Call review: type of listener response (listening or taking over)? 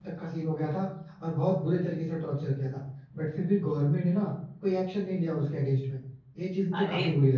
taking over